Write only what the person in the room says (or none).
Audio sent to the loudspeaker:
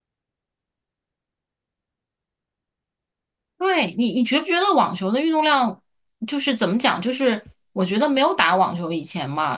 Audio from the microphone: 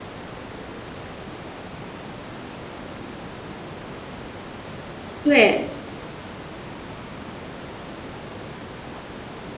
对。